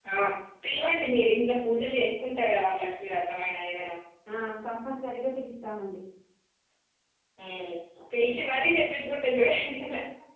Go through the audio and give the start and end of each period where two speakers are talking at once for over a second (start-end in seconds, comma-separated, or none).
none